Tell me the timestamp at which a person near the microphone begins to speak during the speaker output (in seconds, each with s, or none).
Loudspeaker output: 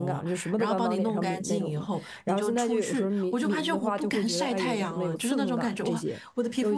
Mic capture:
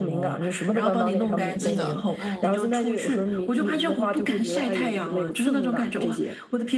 1.6 s